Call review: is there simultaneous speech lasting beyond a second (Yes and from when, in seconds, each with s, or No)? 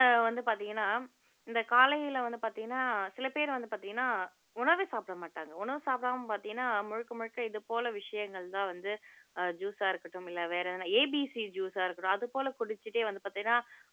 No